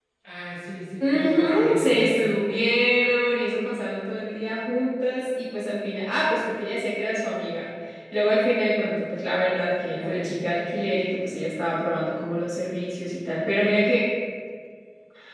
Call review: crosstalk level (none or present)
present